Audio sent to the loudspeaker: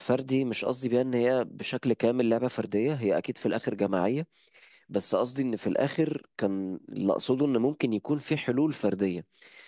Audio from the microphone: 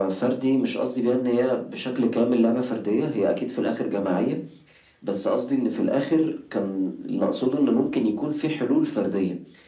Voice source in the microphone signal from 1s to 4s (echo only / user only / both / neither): echo only